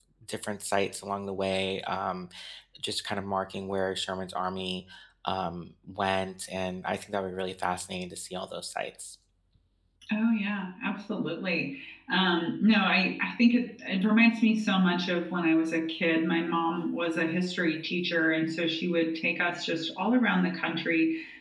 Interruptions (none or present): none